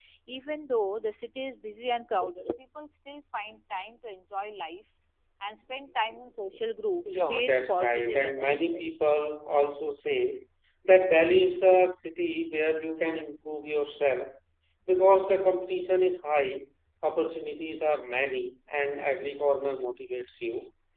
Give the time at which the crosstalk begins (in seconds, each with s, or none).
7.0 s